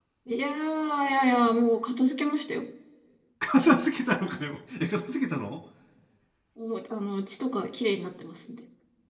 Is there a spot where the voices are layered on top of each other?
No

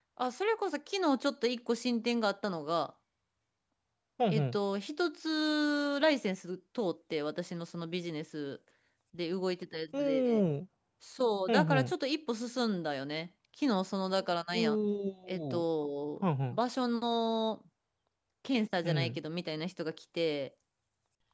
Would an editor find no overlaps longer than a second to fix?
Yes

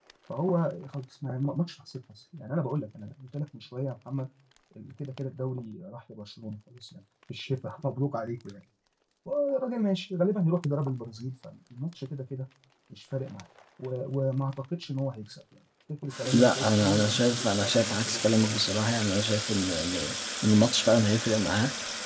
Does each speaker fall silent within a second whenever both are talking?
No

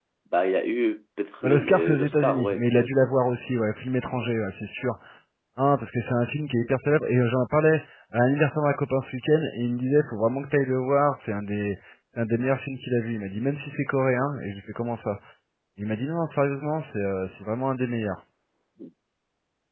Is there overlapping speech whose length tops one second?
Yes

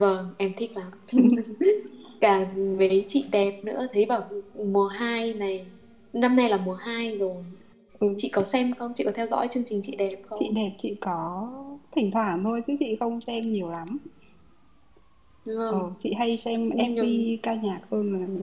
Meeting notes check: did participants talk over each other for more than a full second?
No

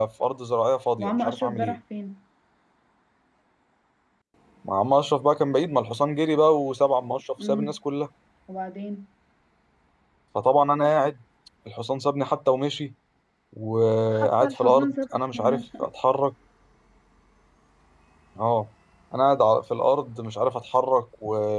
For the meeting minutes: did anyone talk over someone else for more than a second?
Yes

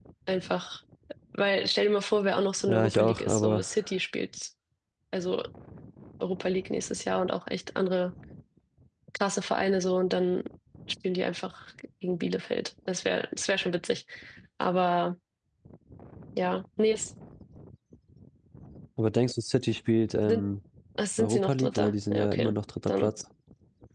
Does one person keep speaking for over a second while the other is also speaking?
Yes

